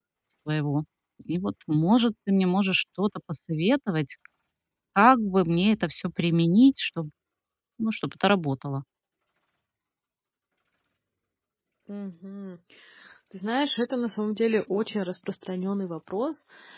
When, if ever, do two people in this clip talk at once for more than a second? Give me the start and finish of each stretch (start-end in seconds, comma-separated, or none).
none